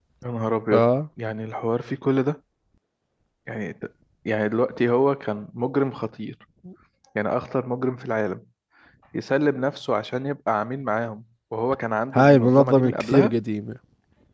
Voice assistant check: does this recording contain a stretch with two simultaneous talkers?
Yes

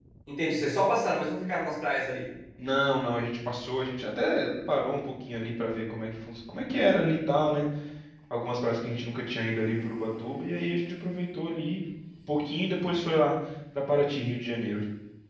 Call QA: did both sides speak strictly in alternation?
Yes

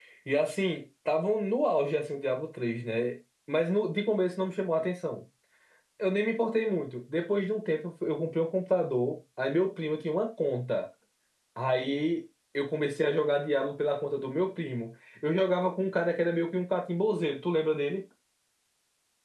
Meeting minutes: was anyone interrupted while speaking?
No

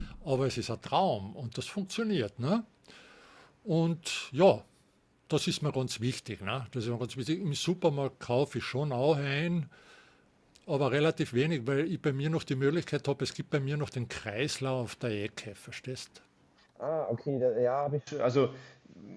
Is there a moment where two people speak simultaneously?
No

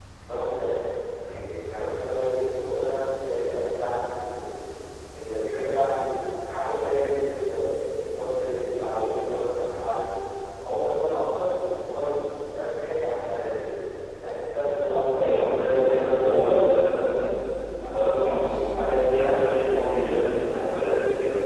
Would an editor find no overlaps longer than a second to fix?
No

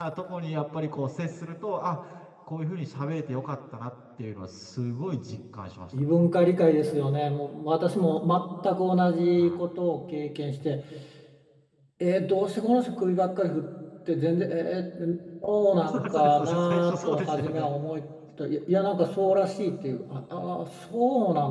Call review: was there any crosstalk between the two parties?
Yes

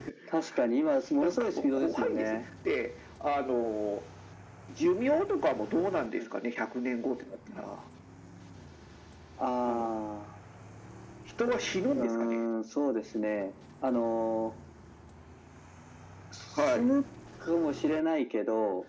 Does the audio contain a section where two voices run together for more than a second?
Yes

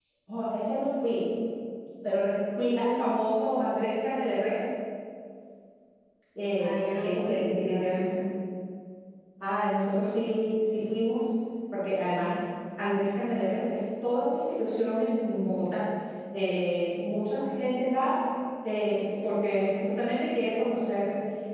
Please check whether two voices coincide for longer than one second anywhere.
Yes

